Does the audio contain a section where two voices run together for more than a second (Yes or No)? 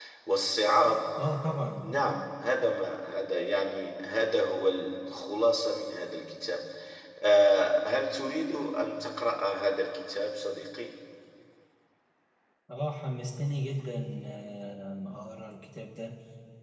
No